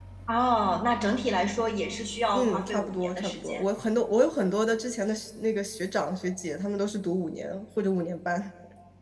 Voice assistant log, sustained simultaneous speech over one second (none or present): present